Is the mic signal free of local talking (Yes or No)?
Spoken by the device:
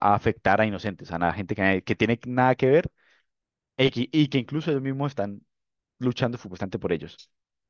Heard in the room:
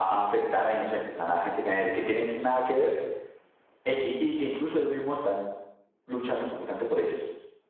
Yes